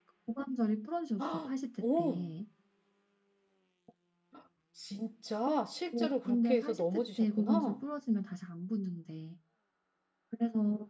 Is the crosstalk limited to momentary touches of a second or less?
No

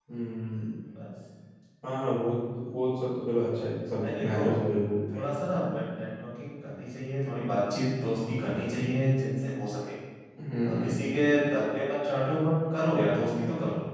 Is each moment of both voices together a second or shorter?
Yes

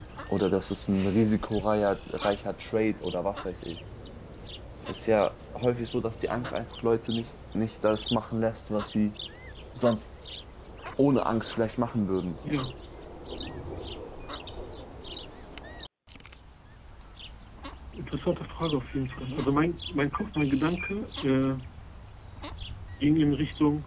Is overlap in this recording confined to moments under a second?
Yes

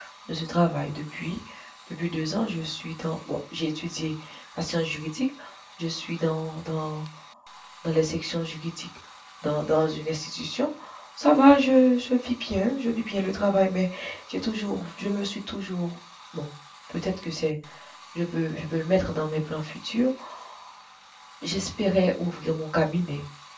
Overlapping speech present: No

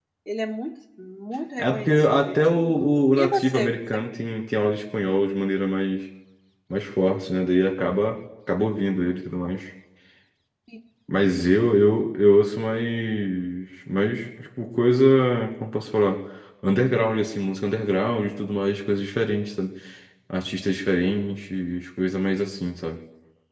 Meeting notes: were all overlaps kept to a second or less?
No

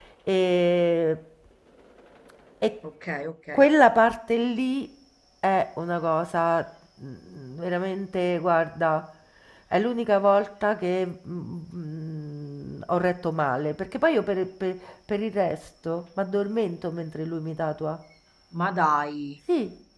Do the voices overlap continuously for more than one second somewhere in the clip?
No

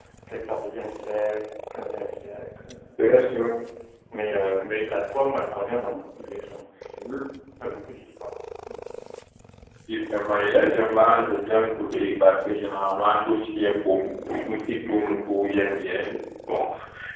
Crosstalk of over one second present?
No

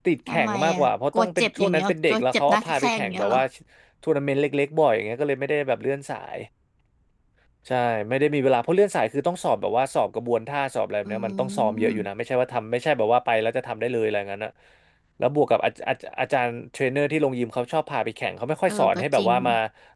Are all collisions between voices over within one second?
No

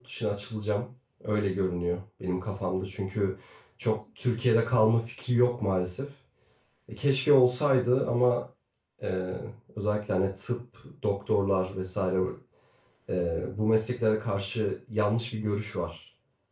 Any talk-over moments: No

